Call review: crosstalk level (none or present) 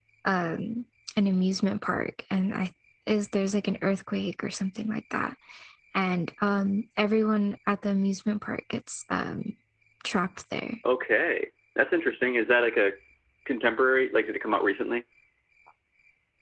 none